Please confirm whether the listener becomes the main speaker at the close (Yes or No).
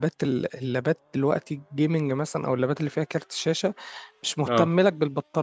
No